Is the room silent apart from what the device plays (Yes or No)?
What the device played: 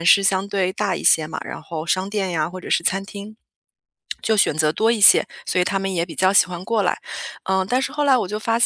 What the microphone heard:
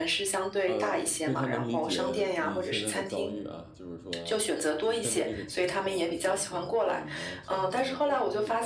No